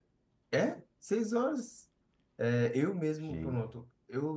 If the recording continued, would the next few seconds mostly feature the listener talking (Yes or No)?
No